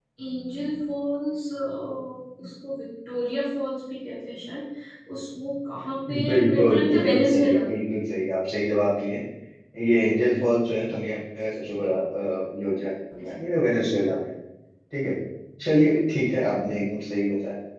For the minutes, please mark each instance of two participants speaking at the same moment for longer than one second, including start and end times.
6.2-7.6

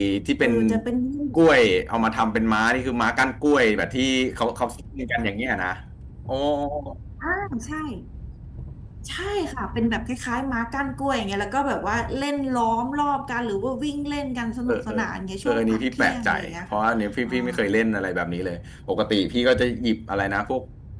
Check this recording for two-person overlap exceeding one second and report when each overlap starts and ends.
15.4-16.8

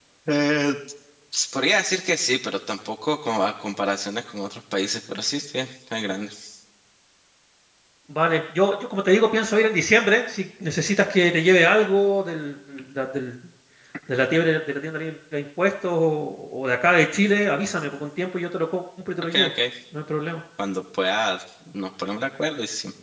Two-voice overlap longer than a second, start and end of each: none

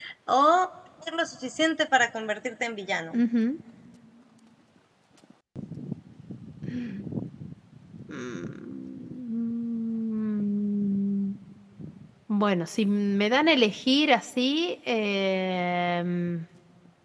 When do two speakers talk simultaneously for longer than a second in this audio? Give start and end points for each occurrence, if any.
none

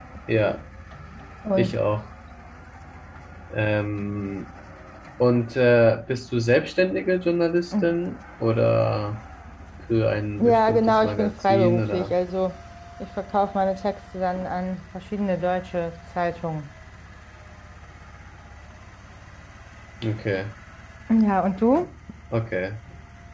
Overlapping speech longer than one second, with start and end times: 10.4-12.1

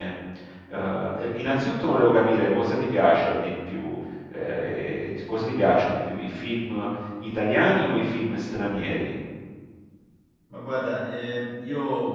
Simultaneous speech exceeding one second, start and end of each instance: none

